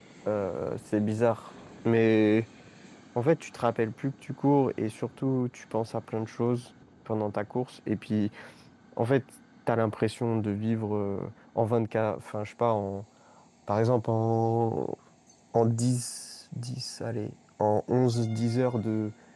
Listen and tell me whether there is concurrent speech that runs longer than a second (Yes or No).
No